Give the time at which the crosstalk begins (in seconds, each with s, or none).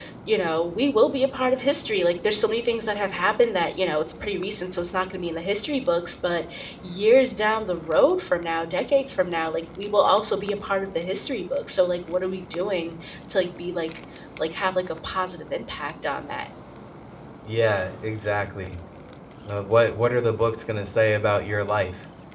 none